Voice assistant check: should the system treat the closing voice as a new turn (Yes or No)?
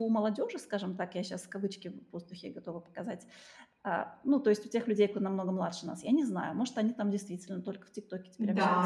Yes